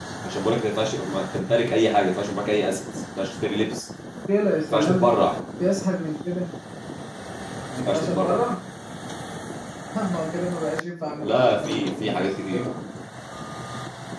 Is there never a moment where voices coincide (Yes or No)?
No